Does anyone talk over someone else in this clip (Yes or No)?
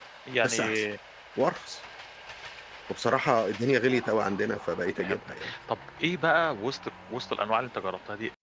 Yes